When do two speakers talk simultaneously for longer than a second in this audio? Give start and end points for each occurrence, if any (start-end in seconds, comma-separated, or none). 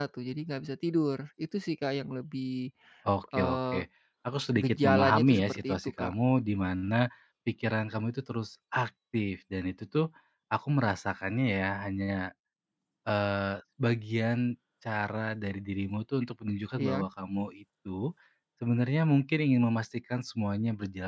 4.6-6.1